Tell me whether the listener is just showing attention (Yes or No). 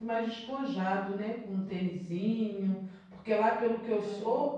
Yes